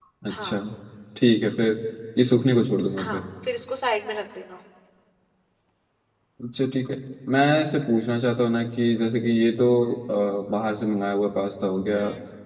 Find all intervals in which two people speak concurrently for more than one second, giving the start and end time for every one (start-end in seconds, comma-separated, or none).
none